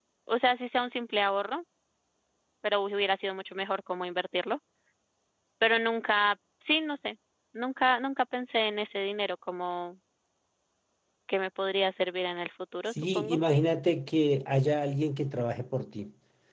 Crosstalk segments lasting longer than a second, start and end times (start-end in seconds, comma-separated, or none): none